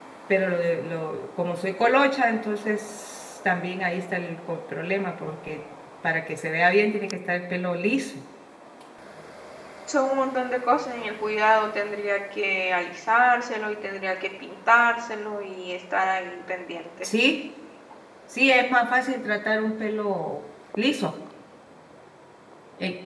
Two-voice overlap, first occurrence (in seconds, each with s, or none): none